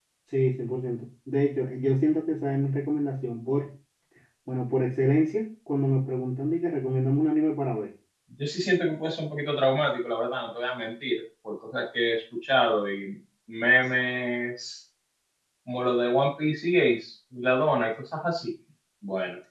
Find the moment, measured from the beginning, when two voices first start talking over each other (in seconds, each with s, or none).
none